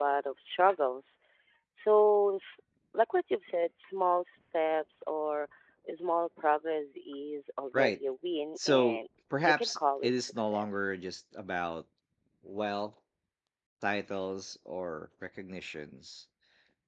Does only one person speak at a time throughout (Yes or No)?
No